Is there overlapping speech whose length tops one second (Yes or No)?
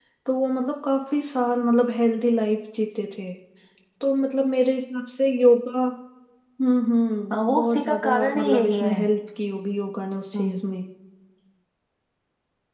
Yes